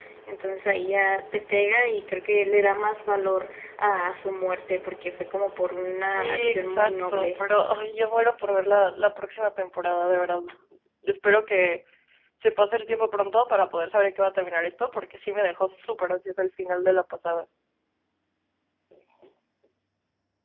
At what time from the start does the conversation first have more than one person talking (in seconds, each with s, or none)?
6.0 s